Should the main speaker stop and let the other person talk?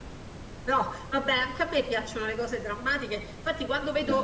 No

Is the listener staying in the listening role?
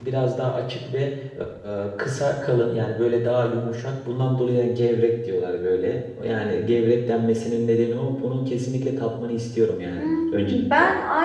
No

